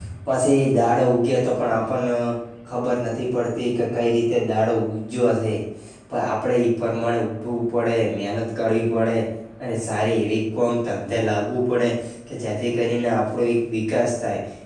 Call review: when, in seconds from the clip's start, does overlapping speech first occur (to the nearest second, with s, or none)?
none